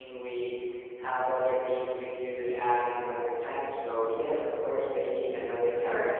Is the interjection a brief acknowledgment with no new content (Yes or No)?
No